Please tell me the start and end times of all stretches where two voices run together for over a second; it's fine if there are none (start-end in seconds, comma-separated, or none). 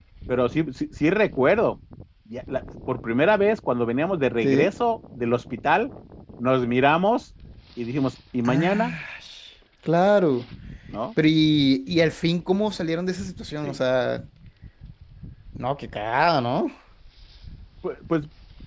none